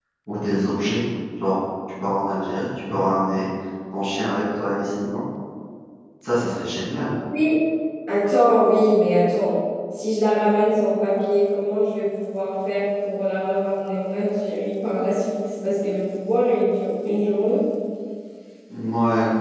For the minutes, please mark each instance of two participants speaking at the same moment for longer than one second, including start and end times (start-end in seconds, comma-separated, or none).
none